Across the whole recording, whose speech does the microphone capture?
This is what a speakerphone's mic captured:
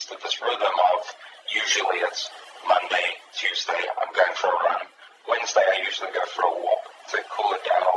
echo only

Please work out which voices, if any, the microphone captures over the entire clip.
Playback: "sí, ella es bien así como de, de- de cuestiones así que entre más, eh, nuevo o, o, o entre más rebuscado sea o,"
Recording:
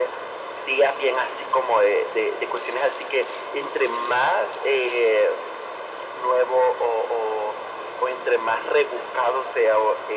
echo only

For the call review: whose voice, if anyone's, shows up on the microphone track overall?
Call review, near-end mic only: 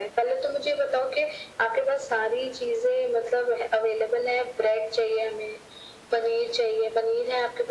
echo only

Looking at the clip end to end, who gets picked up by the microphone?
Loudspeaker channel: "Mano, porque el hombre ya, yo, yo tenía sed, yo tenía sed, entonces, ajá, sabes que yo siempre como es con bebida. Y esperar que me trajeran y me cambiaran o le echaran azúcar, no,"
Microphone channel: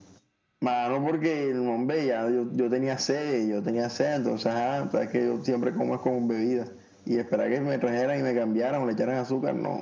echo only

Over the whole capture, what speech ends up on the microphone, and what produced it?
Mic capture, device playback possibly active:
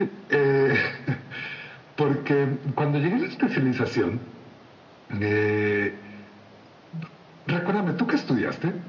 echo only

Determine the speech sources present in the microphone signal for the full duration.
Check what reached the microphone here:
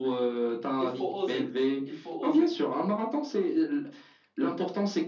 both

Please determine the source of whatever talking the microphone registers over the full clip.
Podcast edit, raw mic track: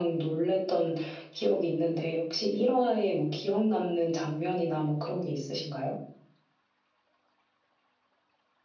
echo only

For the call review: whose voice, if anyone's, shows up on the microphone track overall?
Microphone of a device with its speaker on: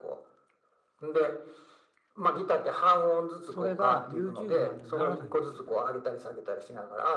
both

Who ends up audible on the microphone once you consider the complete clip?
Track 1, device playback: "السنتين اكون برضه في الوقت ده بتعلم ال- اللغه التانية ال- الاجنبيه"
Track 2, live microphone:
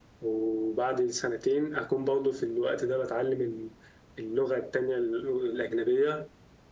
echo only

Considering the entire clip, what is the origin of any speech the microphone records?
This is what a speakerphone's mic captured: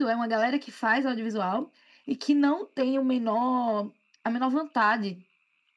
echo only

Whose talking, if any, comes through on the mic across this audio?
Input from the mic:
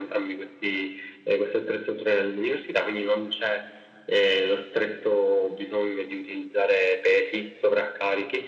echo only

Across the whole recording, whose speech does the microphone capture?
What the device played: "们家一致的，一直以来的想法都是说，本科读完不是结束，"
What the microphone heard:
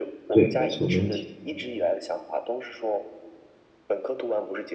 both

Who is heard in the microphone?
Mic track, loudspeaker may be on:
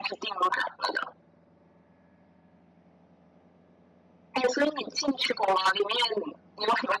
echo only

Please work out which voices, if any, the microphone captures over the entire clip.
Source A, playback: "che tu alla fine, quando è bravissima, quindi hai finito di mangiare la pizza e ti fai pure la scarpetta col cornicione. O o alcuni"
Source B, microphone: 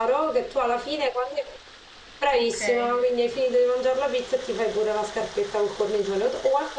both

